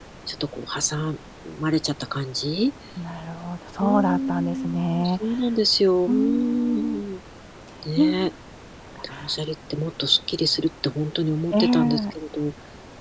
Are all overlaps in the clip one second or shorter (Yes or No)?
No